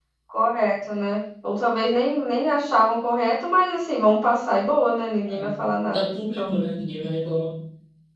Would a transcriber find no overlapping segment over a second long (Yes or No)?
Yes